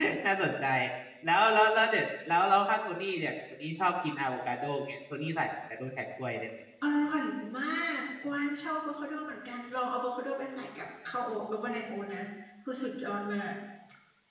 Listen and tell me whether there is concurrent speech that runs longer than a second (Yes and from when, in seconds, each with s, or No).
No